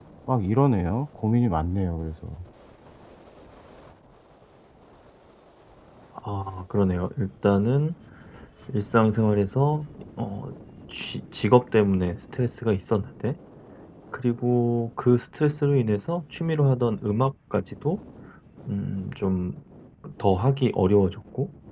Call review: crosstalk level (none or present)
none